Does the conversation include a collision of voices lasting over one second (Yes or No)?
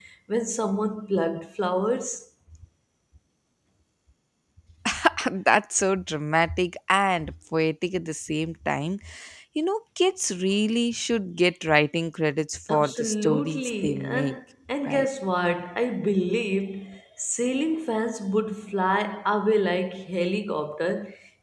Yes